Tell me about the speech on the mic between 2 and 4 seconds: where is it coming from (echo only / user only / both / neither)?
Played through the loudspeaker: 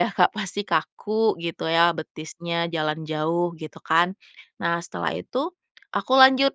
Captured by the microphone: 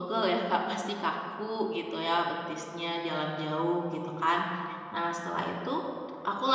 echo only